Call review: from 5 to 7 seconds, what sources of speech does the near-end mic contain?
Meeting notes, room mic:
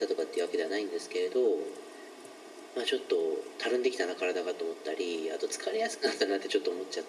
echo only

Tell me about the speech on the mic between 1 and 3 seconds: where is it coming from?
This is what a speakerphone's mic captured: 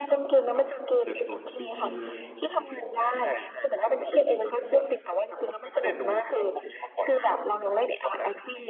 both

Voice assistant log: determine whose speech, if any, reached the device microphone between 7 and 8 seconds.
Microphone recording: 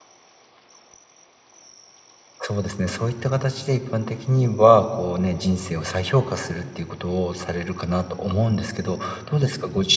user only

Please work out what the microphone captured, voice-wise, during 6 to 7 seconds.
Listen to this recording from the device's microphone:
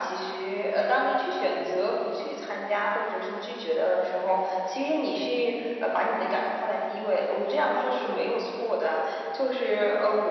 echo only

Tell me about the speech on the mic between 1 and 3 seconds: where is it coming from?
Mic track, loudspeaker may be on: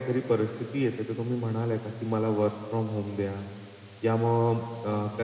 echo only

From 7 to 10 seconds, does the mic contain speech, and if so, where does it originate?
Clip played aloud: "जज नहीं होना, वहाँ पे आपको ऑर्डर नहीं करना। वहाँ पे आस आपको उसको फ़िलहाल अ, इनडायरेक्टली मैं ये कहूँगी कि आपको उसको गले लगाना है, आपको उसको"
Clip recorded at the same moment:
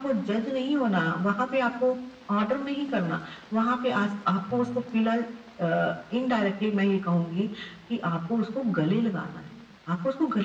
echo only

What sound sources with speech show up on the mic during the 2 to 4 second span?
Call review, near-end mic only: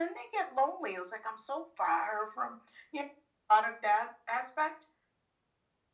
echo only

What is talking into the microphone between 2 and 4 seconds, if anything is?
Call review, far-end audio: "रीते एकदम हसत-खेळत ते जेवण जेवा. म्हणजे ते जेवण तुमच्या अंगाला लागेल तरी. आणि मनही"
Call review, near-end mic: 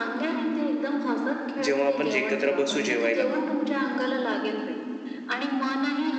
both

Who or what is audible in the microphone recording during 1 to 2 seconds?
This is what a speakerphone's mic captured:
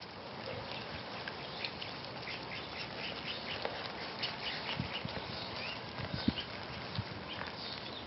neither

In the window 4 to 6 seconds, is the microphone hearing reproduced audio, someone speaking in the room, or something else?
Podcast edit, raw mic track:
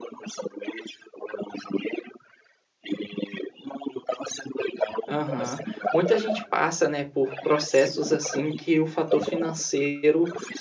both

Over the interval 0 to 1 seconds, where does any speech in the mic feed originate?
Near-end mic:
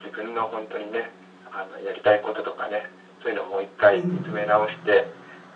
echo only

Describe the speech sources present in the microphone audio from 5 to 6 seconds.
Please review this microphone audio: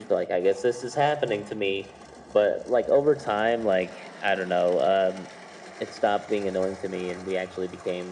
echo only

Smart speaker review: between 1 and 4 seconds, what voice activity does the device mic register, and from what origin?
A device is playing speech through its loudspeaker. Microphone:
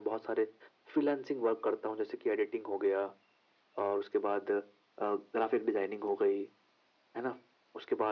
echo only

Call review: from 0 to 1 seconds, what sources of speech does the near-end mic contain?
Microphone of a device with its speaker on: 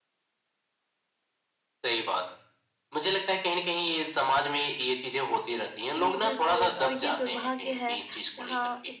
neither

